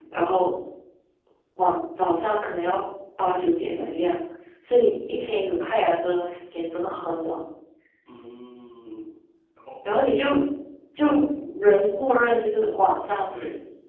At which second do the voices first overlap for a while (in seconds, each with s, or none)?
none